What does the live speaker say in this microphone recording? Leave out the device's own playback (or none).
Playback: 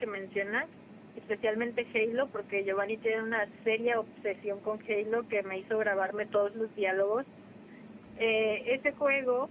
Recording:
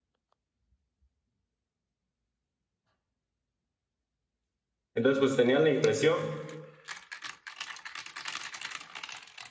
Entonces pues tenía la impresión,